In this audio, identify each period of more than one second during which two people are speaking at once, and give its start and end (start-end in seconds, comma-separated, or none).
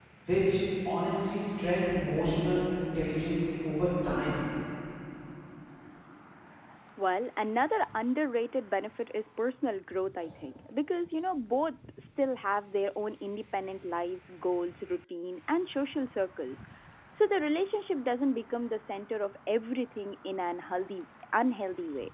none